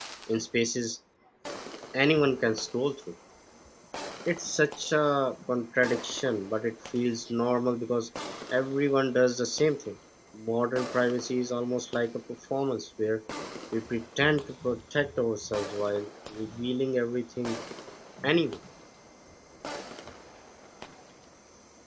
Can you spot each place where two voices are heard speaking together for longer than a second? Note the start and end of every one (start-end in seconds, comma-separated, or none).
none